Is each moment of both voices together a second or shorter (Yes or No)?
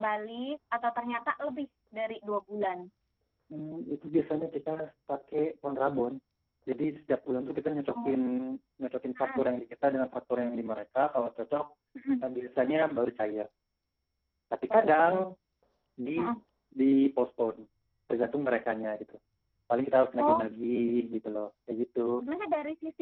Yes